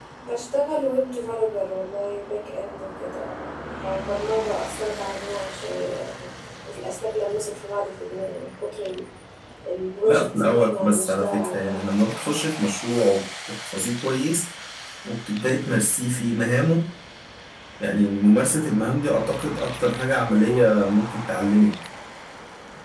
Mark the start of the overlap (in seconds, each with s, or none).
10.1 s